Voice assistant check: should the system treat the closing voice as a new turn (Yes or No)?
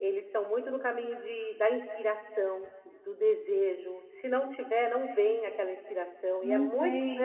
No